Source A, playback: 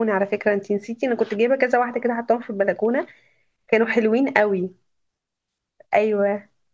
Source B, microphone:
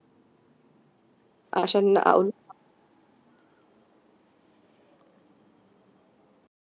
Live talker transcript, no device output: عشان اقول

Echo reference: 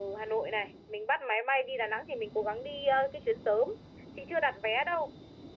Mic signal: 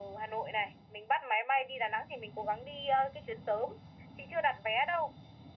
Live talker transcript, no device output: none

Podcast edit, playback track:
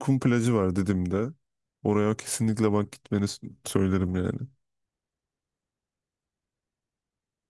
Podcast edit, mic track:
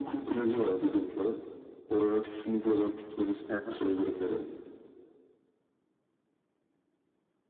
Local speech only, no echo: Hı hı.

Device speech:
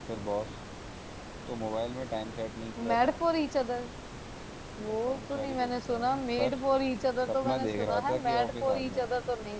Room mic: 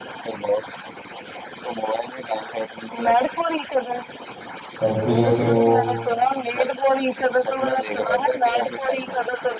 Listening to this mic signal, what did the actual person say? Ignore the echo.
पप्पू जैसे वो

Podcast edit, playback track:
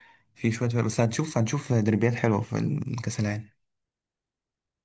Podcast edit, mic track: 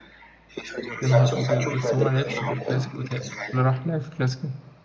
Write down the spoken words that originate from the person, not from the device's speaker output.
يا نهار ابيض بس هو ما لعبش في الكلاسيكو تاني اللي راح لعب في الكلاسيكو

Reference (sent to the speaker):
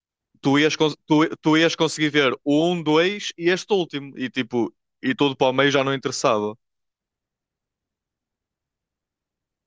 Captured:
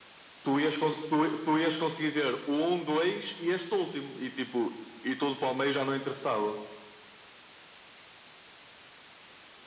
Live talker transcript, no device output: none

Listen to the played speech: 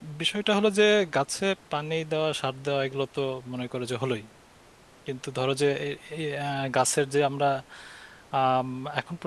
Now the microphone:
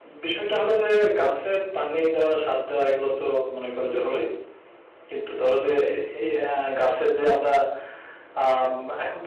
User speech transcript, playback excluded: none

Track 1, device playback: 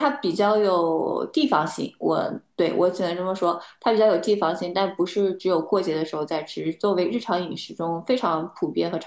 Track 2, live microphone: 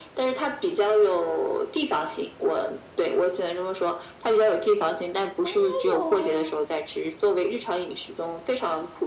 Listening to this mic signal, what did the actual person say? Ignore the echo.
当然有啊，

